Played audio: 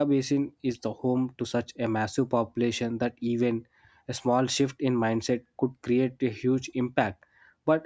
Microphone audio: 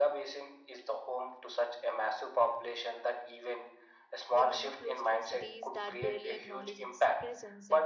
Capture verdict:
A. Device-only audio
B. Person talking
B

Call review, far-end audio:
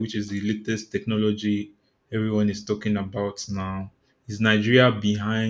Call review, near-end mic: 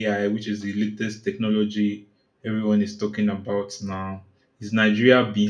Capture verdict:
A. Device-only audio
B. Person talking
A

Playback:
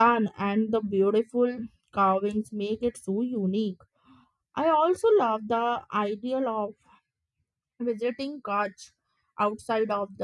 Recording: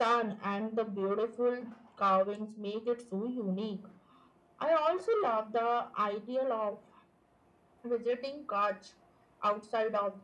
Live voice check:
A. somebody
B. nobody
B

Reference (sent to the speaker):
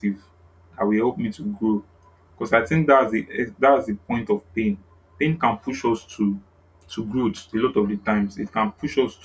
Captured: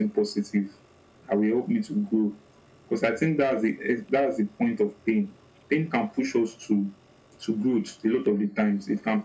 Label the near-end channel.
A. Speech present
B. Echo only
B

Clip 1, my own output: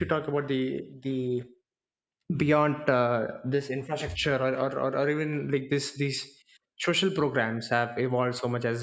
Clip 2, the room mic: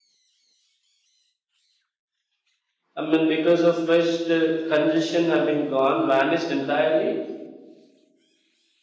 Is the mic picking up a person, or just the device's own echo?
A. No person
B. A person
B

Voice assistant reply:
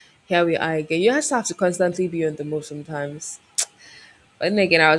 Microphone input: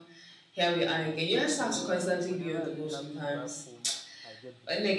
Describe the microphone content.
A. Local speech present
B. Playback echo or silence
A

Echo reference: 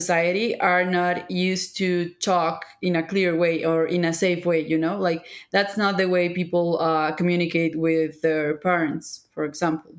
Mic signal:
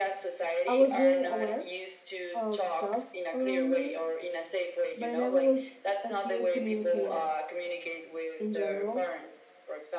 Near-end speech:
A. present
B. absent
A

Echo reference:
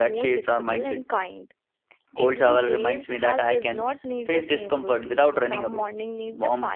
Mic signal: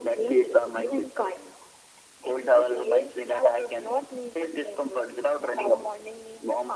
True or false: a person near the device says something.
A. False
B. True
A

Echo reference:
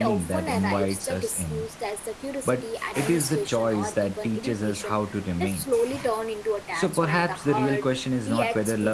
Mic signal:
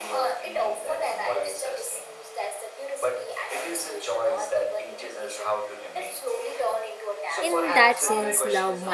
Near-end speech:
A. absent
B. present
B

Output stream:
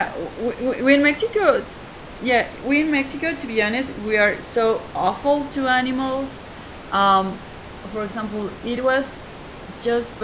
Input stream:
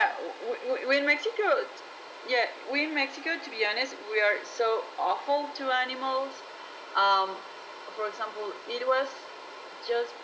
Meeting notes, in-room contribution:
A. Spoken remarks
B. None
B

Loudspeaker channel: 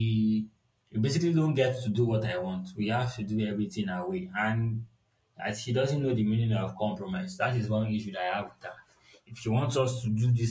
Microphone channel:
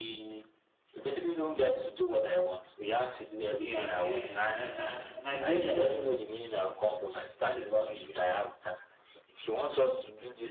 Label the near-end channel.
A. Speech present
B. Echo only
A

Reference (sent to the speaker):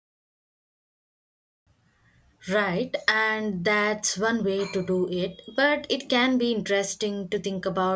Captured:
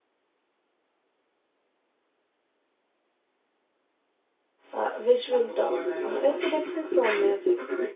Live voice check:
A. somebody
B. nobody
A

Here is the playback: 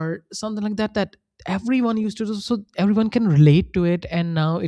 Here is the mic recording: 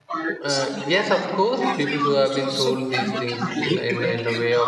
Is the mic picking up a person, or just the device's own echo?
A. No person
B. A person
B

